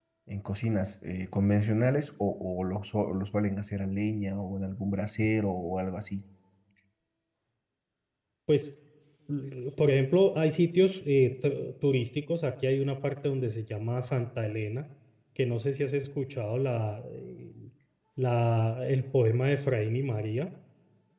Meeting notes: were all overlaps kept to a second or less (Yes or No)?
Yes